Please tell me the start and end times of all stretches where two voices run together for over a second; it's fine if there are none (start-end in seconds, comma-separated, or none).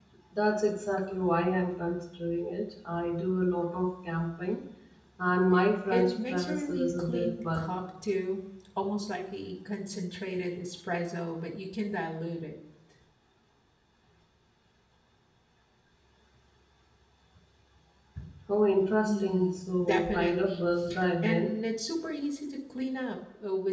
5.9-7.7, 19.0-20.6